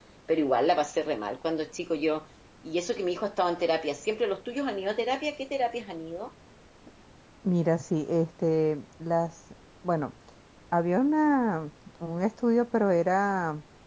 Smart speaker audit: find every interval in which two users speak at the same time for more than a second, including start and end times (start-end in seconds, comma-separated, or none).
none